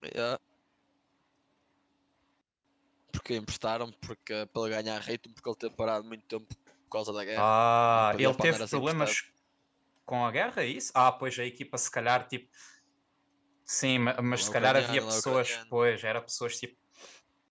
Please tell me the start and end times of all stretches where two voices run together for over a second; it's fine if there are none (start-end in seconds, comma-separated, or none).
7.9-9.1, 14.3-15.6